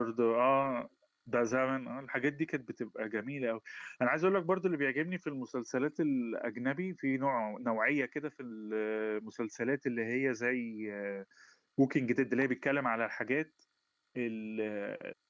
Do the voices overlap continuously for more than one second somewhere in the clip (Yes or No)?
No